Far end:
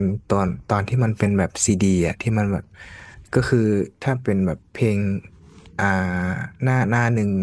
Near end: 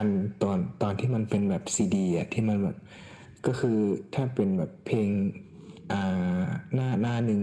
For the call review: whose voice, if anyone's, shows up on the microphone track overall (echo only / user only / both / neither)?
echo only